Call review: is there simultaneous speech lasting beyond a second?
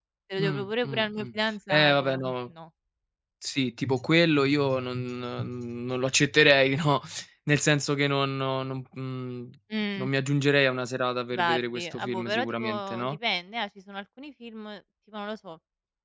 Yes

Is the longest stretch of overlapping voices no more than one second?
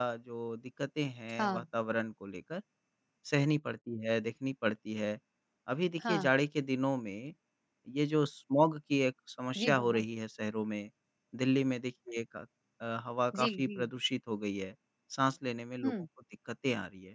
Yes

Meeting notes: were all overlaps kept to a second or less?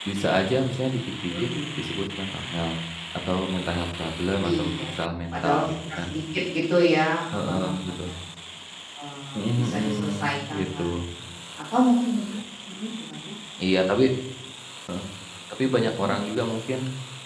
No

